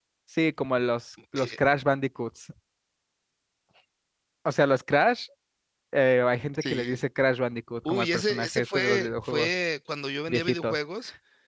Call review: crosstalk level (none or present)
present